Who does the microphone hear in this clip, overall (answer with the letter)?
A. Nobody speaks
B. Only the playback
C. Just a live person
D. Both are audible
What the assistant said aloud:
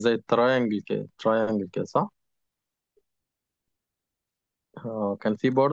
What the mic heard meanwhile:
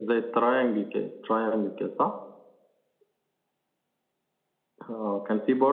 B